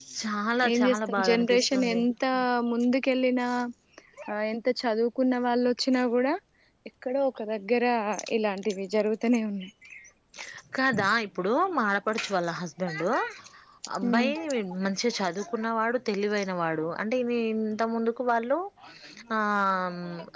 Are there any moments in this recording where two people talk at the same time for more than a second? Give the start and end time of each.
0.7-2.0

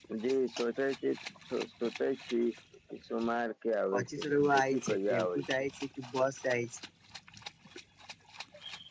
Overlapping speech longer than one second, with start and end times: 3.9-5.6

